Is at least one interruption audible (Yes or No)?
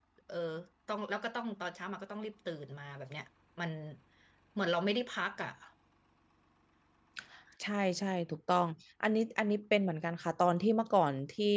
No